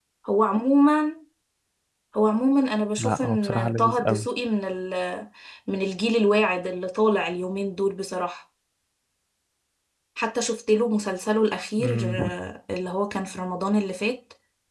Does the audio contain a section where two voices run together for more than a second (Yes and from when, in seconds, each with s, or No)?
Yes, from 3.0 s